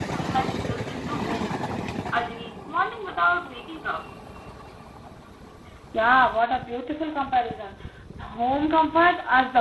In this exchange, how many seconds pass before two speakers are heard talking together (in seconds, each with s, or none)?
none